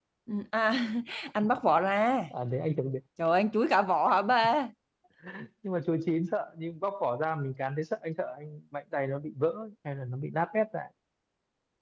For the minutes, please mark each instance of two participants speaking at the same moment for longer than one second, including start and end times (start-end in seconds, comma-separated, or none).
none